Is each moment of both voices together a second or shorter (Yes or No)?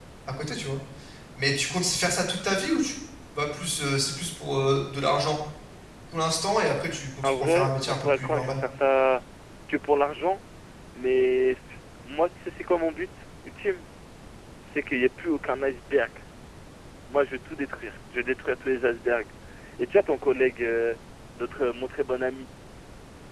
No